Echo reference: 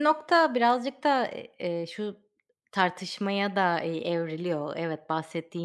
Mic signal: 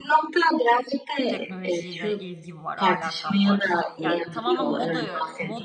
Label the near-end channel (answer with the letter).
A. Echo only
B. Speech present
B